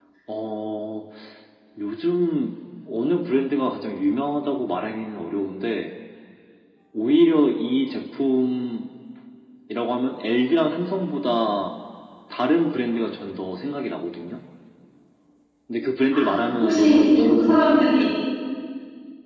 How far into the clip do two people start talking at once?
16 s

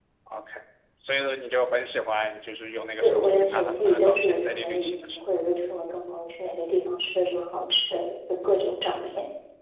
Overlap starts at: 3 s

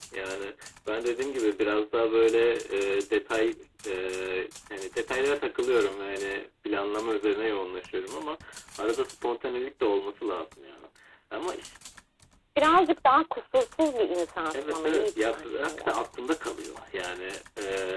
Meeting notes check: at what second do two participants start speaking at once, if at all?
15 s

